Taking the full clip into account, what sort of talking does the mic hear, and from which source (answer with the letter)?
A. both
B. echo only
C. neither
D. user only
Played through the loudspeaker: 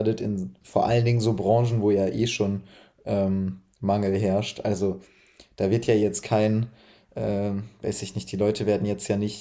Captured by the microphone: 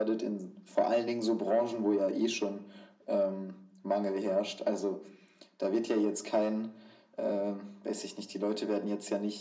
B